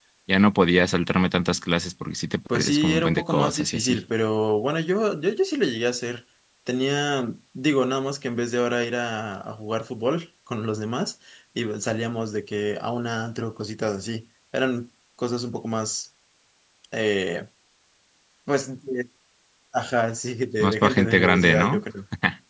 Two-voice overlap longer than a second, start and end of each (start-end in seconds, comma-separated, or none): 2.5-4.0, 20.6-21.8